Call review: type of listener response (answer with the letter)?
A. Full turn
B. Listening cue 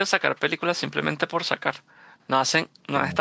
B